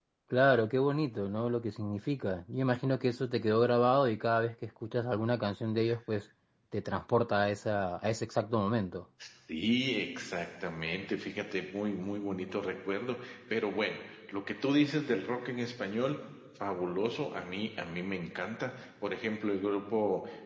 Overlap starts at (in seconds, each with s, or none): none